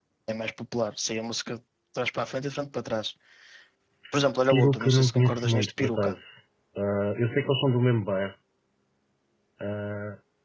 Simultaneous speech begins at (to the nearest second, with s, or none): 4 s